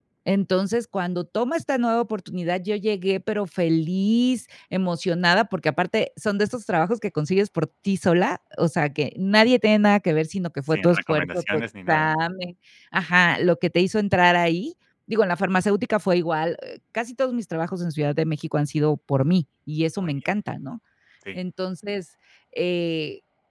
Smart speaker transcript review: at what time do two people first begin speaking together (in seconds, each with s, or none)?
10.7 s